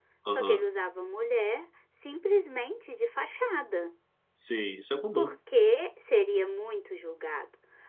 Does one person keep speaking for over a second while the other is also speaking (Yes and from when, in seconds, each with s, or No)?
No